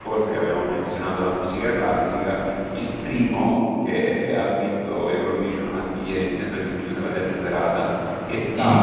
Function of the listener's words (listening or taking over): listening